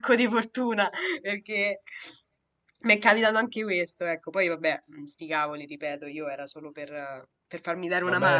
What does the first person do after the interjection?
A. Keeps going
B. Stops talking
B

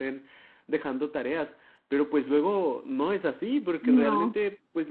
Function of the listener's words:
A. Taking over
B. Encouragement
B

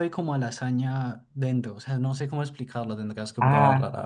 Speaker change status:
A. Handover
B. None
A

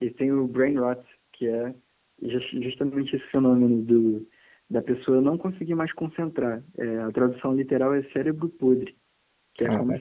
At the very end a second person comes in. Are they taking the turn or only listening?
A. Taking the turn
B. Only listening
B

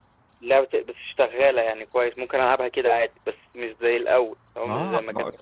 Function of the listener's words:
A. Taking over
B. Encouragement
A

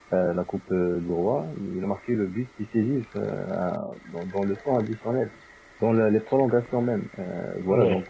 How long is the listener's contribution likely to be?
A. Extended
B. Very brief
B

